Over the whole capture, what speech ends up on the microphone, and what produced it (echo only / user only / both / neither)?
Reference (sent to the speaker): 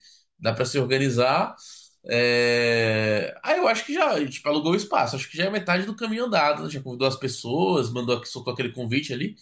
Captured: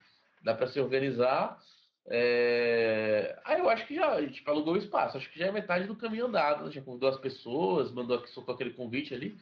echo only